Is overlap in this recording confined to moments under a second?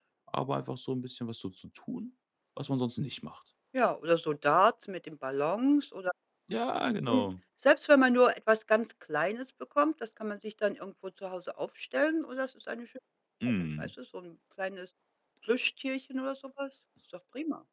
Yes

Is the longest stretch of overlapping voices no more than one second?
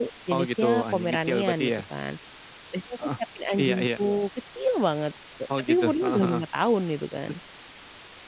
No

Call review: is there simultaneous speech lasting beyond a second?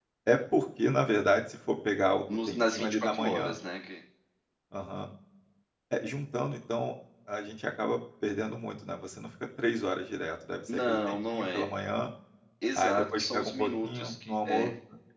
Yes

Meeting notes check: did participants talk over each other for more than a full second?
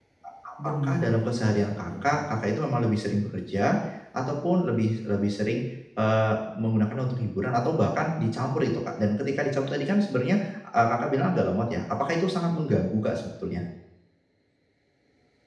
Yes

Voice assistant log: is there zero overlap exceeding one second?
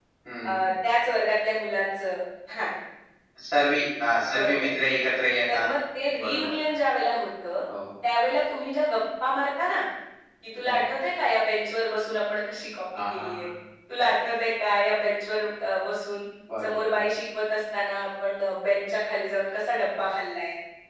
Yes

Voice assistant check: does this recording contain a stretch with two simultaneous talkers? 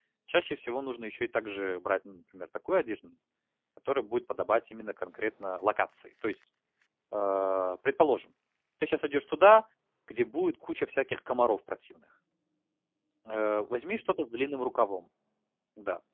No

